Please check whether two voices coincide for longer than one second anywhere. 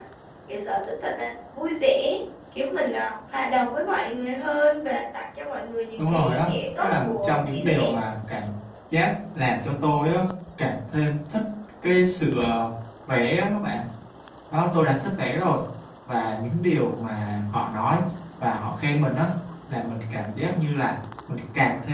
Yes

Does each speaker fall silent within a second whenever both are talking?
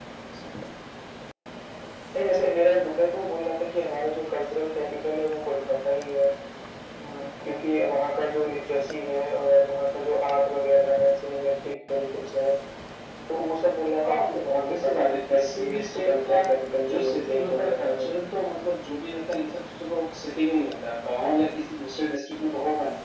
No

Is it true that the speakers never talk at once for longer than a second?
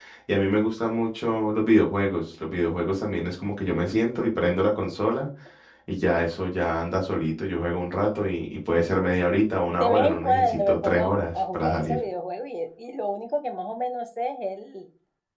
No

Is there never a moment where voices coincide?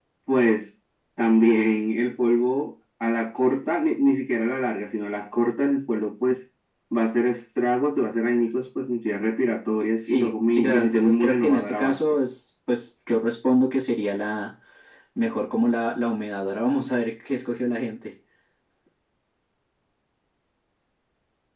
No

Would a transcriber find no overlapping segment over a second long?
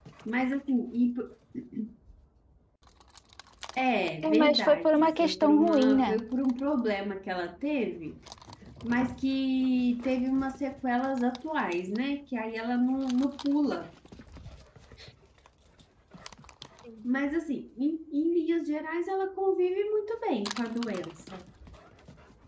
No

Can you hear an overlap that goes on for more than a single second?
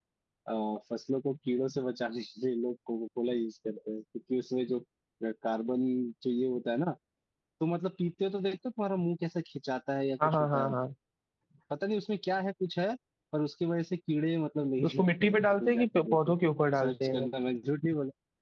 Yes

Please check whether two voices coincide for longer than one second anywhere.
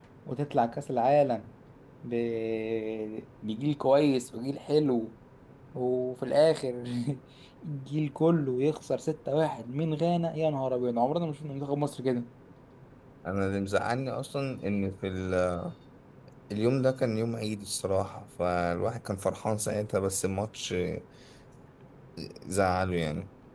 No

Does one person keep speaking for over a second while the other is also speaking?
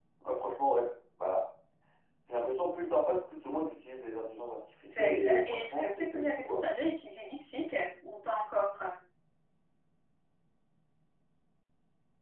Yes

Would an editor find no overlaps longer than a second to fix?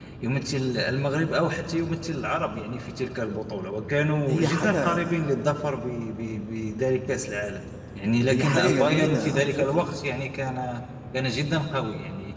No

